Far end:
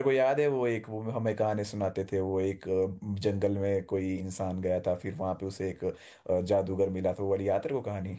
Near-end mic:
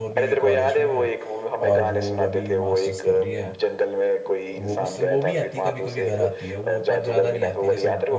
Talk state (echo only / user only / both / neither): both